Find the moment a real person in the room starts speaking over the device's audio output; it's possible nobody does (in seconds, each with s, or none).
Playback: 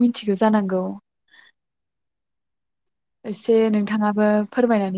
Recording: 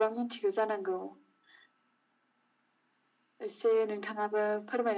none